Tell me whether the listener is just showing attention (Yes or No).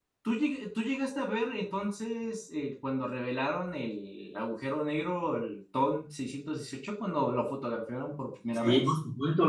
No